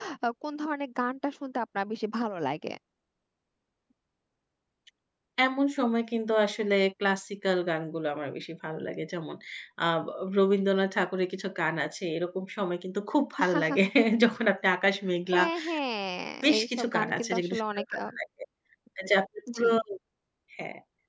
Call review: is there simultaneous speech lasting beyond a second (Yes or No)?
Yes